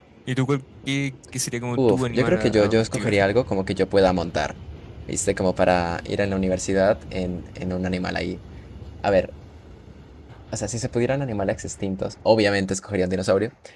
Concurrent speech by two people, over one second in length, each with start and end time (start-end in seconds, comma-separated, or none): 1.8-3.1